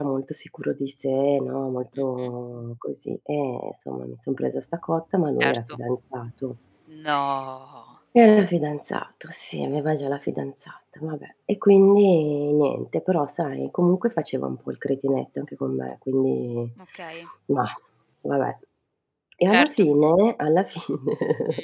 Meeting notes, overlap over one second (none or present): none